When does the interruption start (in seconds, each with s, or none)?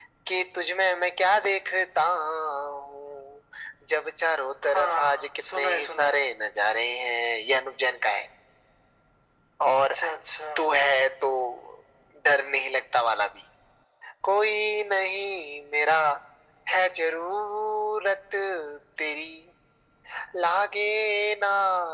4.7 s